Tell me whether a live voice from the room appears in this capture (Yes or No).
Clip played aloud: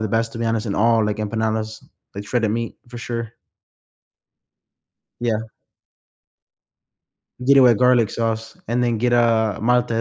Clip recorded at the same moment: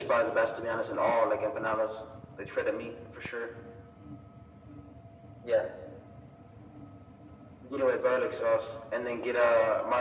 No